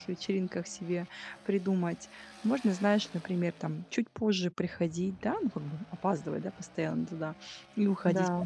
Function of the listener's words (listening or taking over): listening